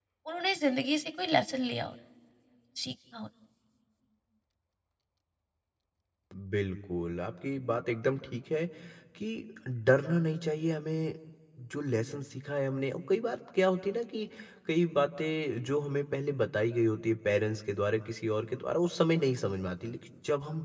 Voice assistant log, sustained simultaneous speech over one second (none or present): none